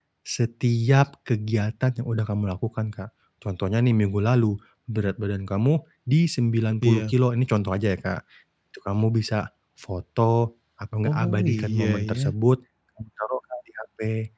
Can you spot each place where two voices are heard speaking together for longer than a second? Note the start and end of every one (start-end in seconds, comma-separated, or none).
11.0-12.3